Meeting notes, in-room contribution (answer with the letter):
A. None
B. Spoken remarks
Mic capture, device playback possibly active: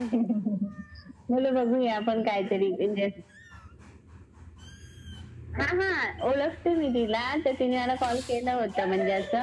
A